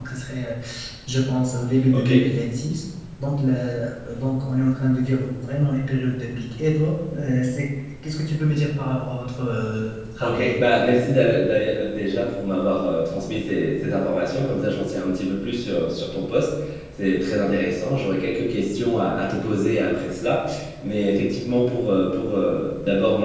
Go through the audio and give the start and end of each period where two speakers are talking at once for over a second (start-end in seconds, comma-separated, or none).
none